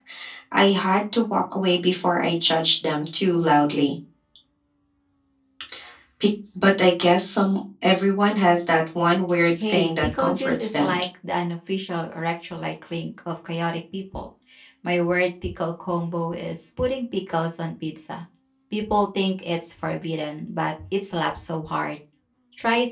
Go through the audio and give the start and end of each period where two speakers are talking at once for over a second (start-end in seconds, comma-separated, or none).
9.6-11.0